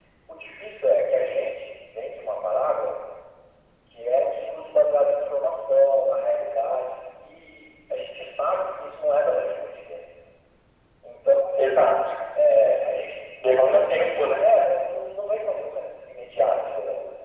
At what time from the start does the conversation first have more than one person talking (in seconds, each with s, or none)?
none